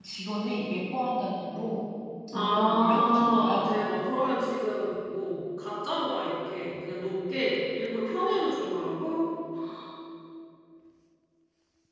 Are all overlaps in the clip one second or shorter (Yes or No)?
No